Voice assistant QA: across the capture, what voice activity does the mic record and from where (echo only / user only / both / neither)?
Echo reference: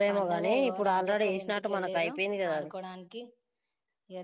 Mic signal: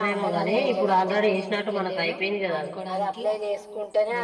both